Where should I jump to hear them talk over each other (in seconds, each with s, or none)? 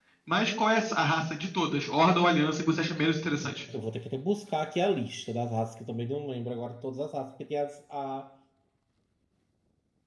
none